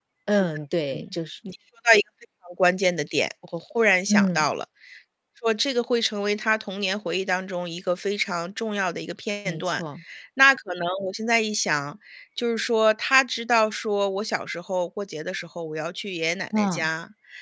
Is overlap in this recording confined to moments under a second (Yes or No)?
Yes